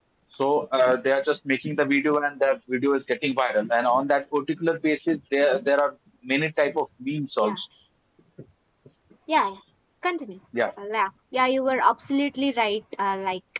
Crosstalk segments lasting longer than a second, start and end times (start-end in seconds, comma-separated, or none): none